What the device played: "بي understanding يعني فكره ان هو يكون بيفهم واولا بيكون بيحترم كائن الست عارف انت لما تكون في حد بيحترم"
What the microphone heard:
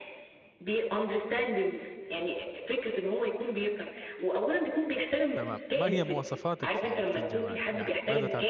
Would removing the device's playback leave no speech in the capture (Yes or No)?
No